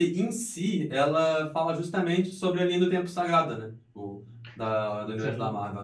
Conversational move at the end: listening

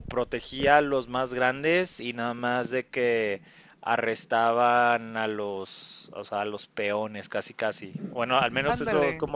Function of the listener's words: listening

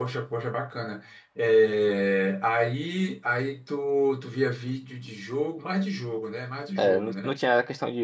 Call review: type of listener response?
taking over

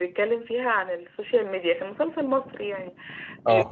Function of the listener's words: listening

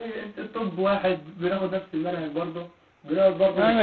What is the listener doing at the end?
taking over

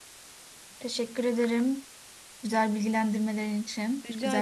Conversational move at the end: taking over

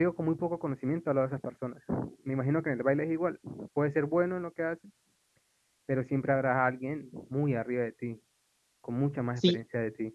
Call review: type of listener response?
taking over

